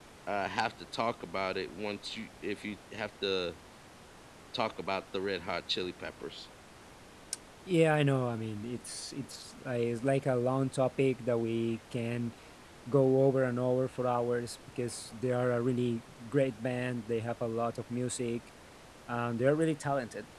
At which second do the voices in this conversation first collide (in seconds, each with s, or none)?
none